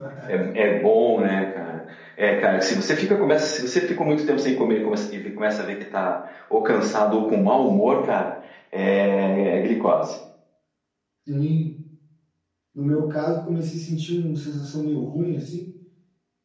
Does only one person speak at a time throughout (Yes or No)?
Yes